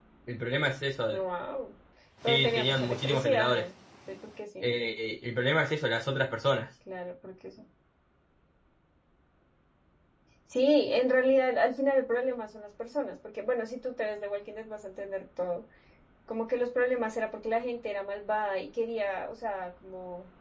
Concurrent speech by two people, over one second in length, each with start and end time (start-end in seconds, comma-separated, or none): 2.3-3.7